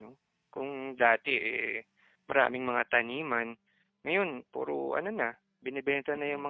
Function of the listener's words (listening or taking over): listening